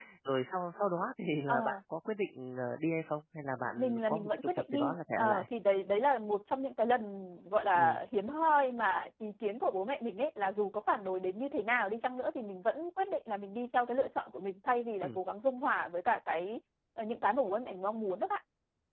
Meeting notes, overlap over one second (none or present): present